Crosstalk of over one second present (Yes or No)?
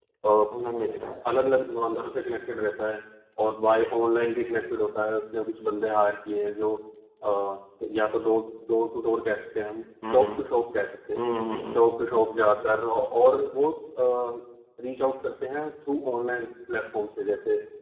No